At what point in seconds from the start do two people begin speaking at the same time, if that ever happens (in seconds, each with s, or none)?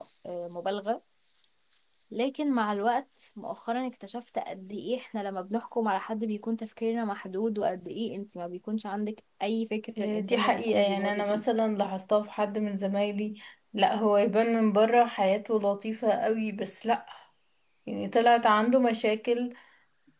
10.0 s